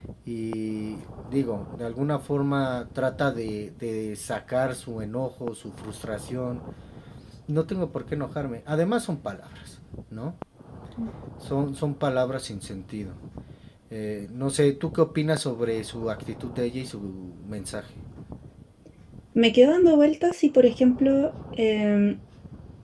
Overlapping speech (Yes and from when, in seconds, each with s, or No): No